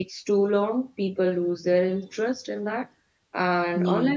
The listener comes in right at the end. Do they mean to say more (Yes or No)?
No